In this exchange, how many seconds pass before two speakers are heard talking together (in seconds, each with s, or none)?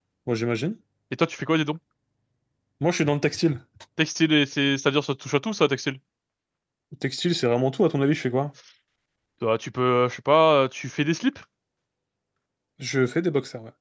none